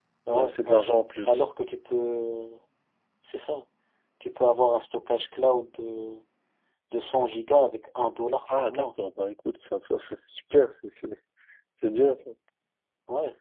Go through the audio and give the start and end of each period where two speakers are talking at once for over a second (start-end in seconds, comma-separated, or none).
none